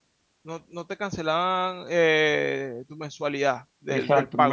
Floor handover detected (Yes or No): Yes